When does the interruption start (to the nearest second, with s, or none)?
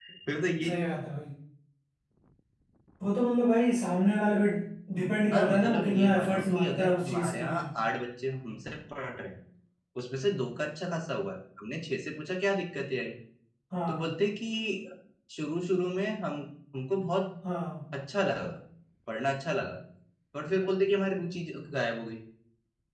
5 s